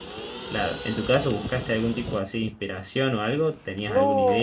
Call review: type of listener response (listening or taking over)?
taking over